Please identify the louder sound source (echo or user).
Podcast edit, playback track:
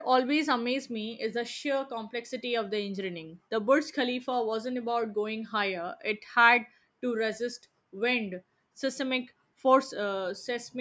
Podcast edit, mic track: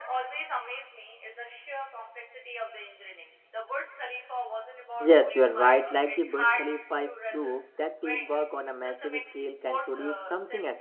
user